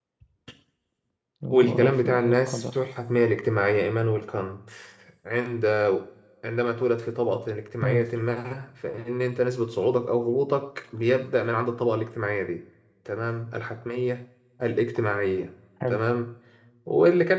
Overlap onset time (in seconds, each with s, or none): 1.5 s